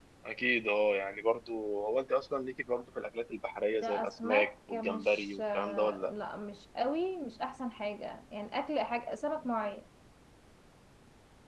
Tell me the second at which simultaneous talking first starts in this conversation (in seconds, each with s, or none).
3.7 s